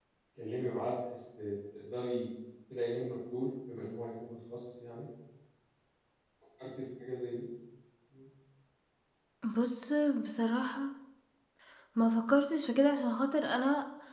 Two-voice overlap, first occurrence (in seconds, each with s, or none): none